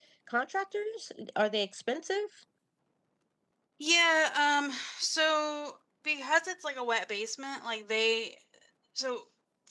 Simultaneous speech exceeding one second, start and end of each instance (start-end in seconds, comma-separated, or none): none